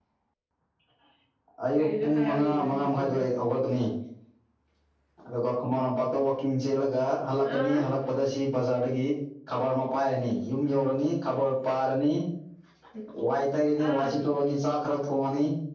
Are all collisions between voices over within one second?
No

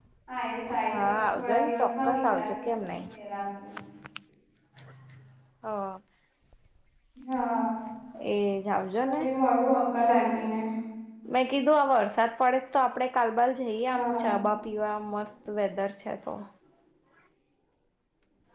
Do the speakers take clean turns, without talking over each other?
No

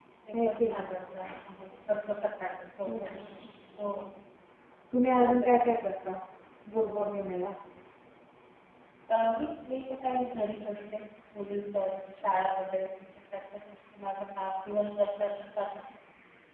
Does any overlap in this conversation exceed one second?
No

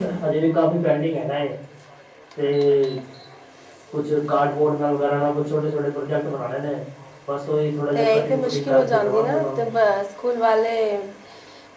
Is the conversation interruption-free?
No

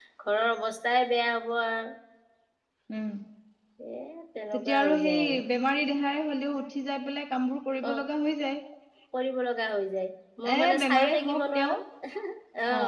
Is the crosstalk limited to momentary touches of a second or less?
No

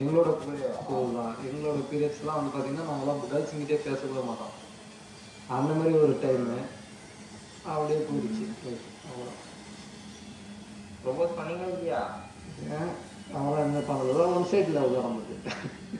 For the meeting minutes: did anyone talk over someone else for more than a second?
No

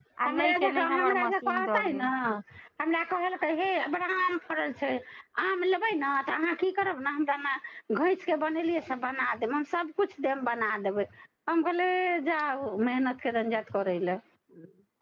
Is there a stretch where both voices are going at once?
Yes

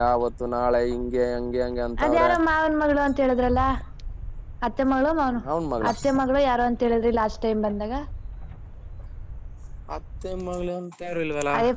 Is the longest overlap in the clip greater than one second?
No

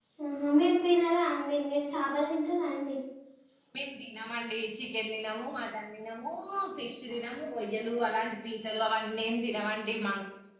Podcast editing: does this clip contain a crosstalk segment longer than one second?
No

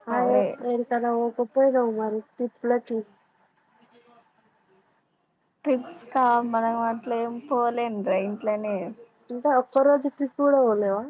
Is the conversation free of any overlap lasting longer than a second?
Yes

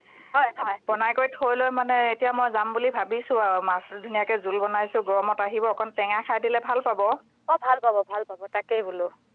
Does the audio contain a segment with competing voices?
No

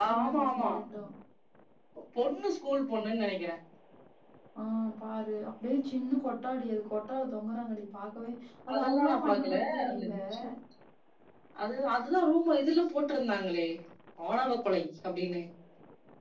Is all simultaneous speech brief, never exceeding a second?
No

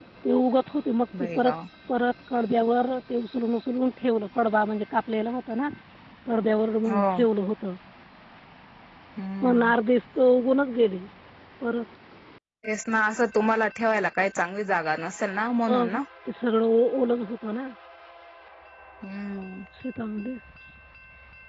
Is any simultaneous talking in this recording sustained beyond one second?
No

